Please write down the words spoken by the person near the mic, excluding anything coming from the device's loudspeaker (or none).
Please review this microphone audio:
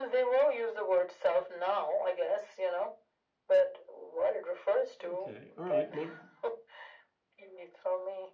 Okay. All right. Well,